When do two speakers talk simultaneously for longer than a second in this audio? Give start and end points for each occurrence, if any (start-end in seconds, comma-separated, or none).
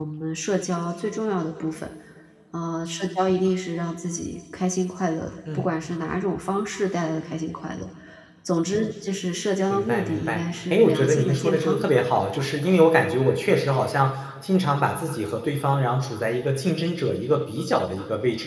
9.7-11.9